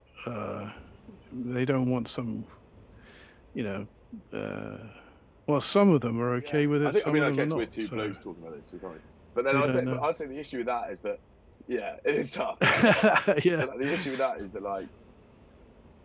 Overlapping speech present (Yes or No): Yes